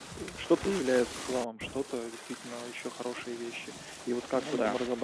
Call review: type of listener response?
listening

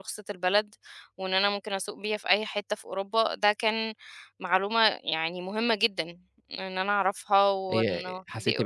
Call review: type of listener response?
taking over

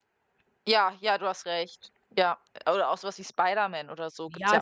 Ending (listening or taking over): taking over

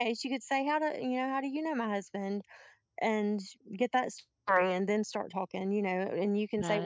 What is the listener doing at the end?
listening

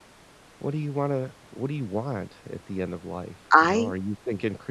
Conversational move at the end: listening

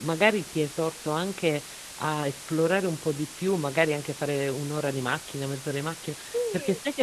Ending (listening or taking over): listening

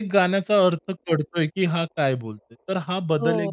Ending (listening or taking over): taking over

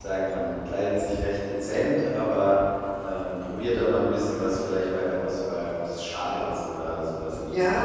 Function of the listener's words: taking over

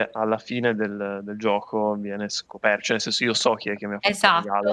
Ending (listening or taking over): taking over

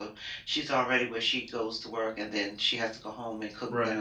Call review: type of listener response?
listening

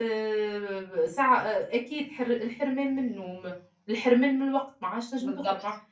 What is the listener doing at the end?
listening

